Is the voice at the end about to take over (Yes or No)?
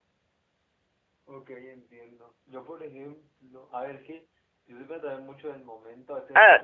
Yes